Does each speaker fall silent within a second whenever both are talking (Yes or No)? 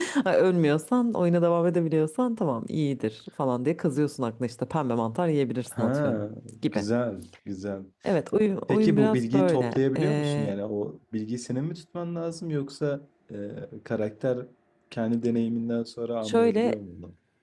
No